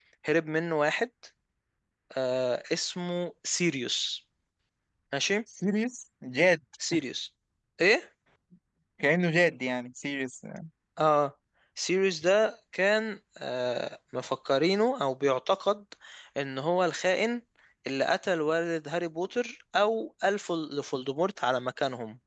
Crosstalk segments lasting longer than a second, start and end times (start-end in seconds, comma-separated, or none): none